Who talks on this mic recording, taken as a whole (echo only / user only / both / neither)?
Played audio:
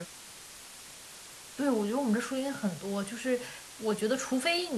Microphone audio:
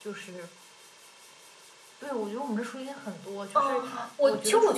both